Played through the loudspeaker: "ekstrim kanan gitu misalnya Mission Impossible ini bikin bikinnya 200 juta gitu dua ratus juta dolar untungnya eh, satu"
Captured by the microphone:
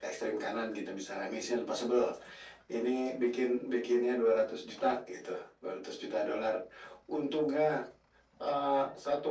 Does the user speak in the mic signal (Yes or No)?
No